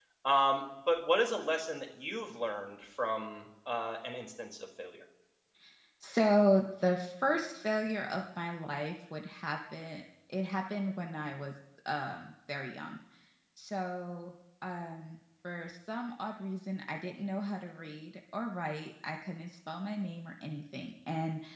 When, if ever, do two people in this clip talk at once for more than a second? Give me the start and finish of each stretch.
none

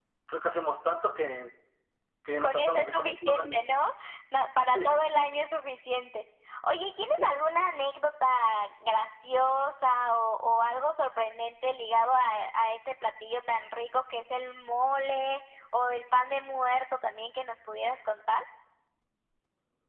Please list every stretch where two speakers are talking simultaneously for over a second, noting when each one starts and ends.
2.4-3.6

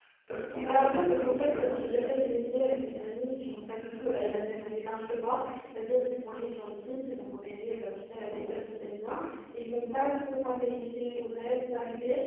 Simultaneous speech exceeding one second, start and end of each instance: 0.6-2.3

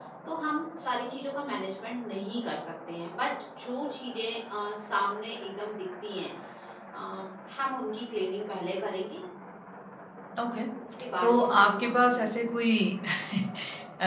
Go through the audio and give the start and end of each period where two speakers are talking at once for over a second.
11.2-12.4

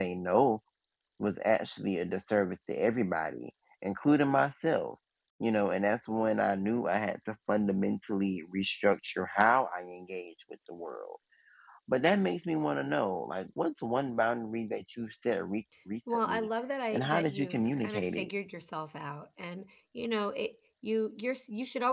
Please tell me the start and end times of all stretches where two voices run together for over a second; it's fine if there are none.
16.9-18.3

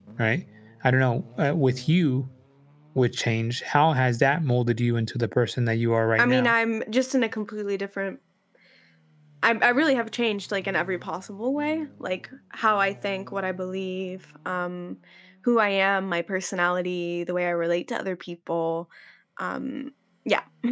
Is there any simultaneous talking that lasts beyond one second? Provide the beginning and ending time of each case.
none

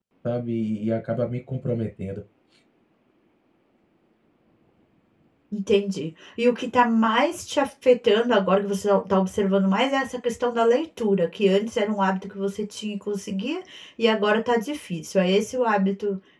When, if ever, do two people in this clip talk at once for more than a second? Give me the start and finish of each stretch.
none

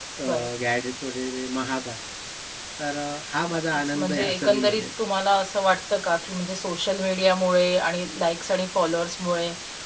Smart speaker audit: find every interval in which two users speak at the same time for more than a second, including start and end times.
3.5-4.8

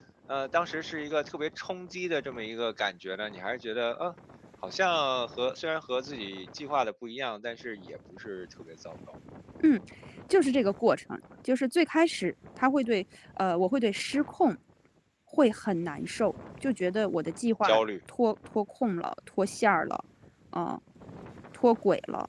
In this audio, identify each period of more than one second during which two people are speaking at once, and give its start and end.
none

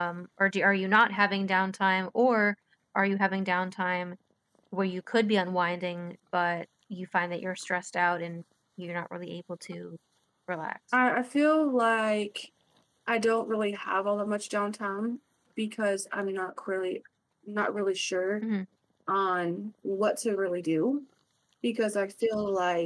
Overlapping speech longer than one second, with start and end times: none

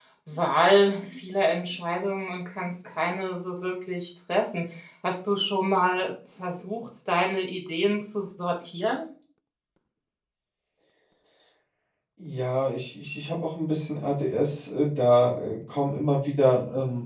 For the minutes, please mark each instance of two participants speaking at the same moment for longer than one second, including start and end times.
none

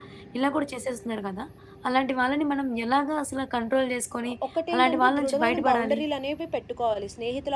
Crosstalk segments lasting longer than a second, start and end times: 4.7-6.0

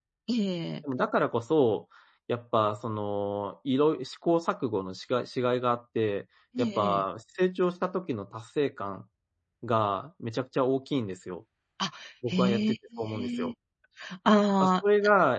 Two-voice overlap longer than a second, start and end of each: 12.3-13.5

